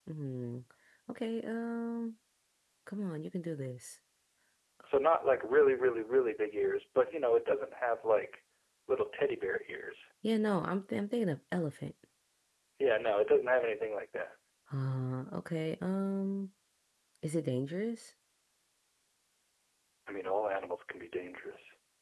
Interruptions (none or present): none